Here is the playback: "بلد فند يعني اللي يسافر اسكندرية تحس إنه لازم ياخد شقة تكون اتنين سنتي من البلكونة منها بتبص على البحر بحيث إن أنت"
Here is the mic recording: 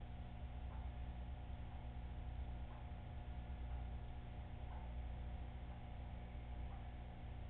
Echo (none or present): none